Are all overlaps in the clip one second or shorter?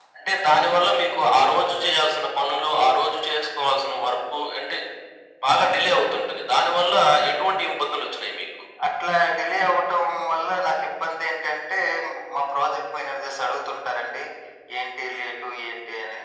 Yes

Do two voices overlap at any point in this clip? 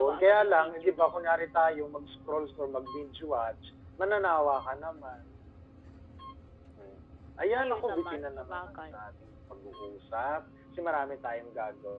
Yes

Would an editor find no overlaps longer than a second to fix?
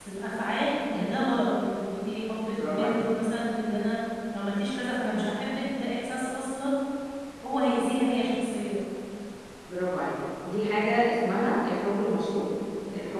Yes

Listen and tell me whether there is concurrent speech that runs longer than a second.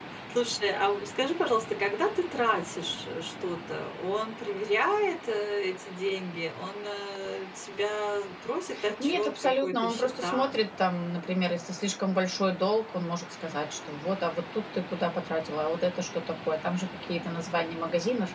Yes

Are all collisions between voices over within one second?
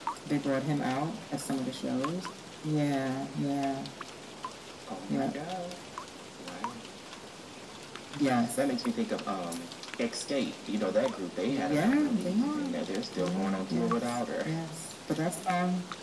No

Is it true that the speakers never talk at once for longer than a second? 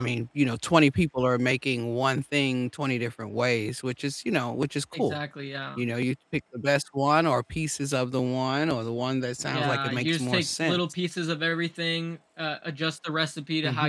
No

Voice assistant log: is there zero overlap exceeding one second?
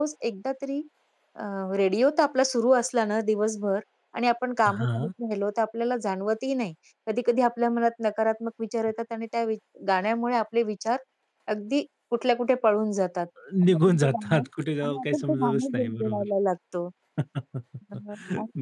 No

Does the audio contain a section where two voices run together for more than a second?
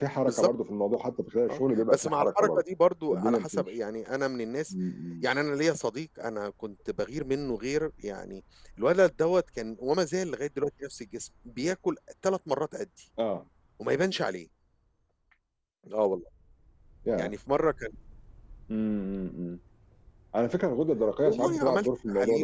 Yes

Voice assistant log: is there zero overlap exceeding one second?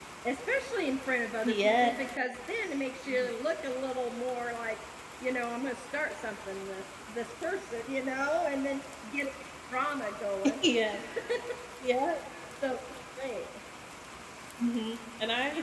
Yes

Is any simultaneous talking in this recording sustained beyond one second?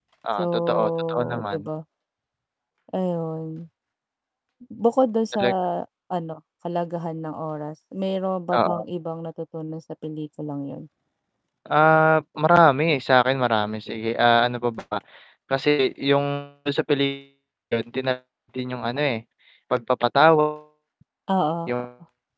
Yes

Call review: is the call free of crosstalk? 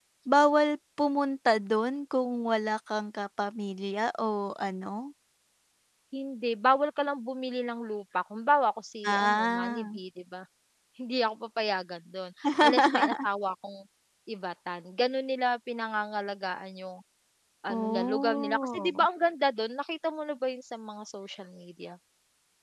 No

